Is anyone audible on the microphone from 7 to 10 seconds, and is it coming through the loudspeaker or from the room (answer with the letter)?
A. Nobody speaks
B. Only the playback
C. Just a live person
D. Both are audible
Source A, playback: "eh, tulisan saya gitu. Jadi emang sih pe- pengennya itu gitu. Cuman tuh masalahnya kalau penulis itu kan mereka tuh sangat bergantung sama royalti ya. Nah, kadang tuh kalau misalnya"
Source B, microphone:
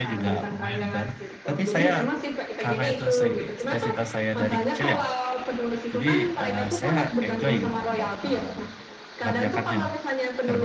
D